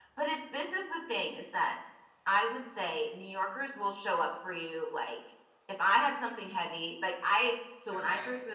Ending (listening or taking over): listening